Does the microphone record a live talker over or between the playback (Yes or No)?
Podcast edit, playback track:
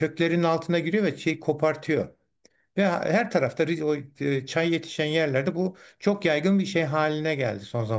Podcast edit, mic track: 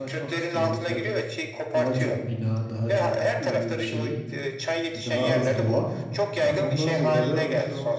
Yes